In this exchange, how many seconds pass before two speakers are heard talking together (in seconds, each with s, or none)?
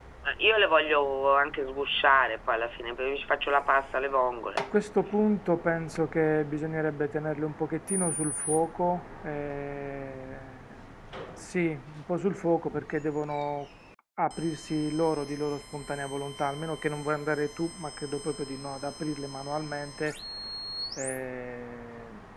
none